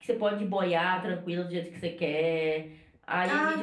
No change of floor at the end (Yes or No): No